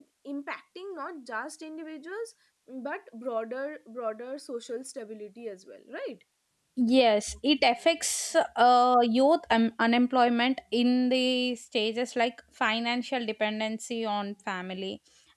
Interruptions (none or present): none